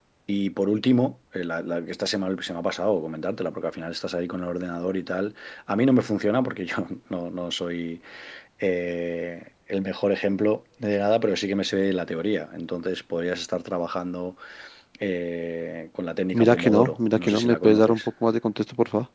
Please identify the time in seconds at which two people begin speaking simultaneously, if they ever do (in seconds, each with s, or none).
16.3 s